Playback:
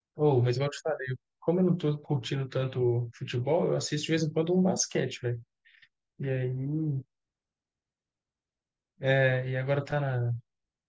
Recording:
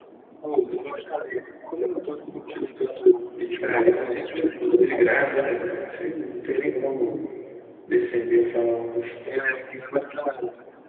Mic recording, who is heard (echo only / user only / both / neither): both